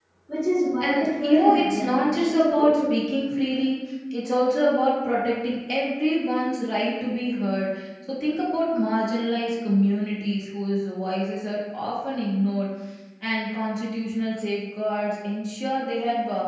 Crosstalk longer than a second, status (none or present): present